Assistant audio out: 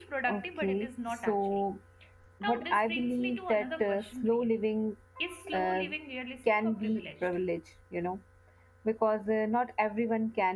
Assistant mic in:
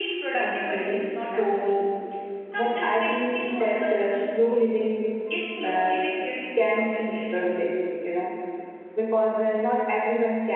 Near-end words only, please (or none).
none